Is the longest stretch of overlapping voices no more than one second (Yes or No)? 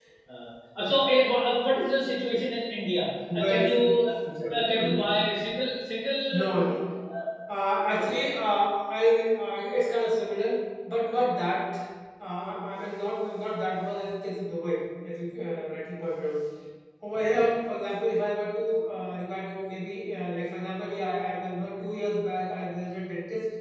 Yes